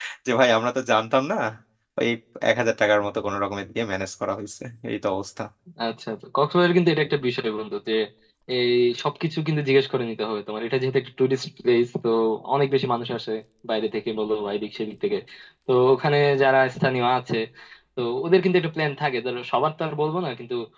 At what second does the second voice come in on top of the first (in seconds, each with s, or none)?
none